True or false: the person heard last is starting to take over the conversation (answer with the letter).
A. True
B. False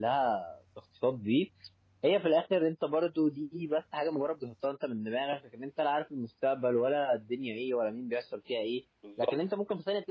B